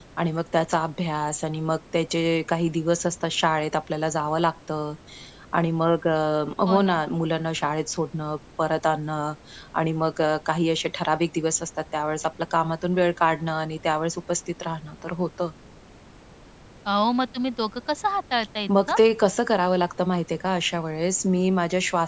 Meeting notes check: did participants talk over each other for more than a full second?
No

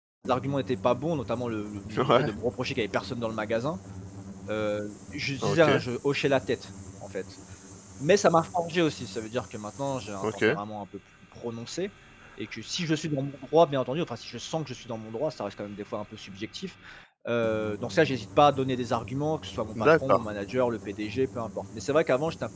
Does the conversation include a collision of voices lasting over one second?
No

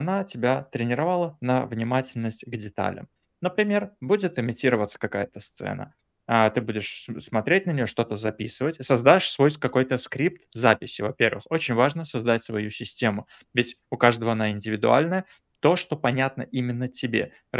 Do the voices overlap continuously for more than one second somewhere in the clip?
No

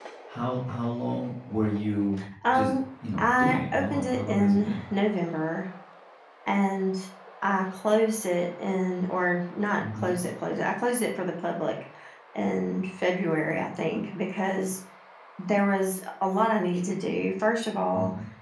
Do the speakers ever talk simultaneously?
Yes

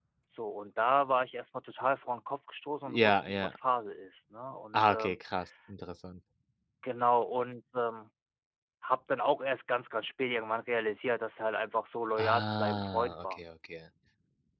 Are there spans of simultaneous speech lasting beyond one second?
Yes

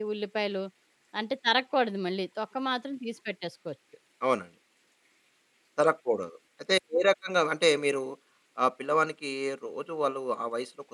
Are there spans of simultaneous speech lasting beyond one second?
No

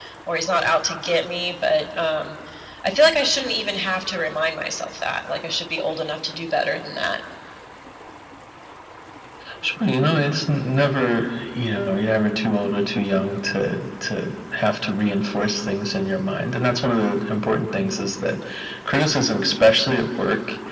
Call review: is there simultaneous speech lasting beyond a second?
No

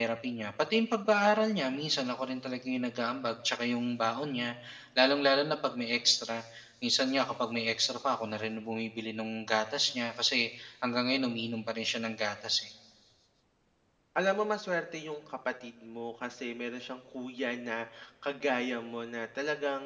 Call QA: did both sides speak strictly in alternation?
Yes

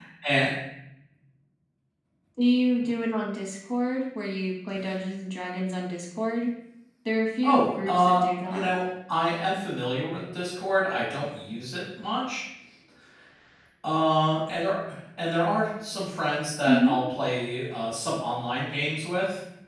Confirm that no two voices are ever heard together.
No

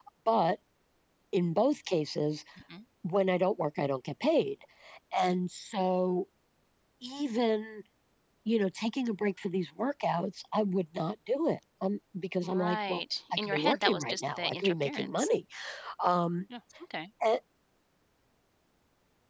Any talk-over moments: Yes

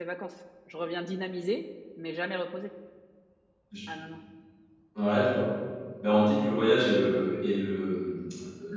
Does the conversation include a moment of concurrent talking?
No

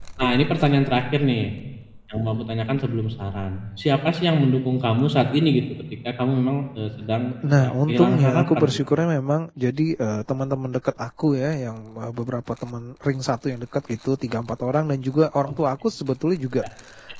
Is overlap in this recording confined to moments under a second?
No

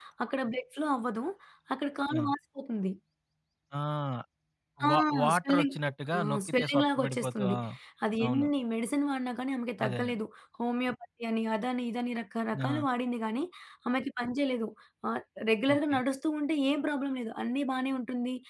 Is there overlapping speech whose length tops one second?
Yes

